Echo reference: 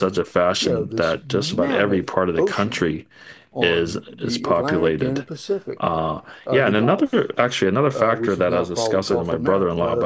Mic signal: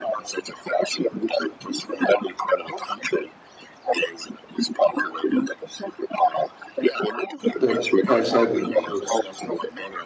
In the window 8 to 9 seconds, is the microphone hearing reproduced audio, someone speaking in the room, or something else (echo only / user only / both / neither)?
both